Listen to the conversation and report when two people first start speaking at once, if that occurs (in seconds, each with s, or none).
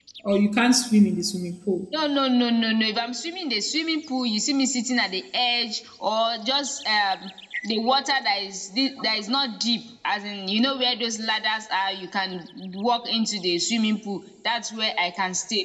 none